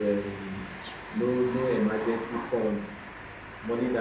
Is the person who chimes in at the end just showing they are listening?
Yes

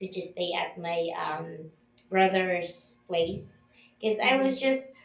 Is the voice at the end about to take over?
No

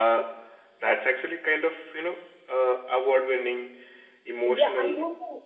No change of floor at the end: No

